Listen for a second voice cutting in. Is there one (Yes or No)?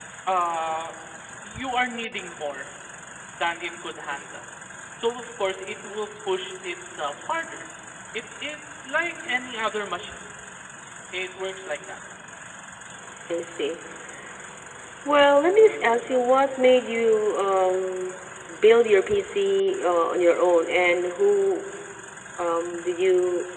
No